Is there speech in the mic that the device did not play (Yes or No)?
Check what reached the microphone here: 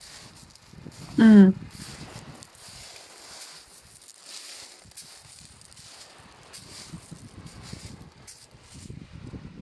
Yes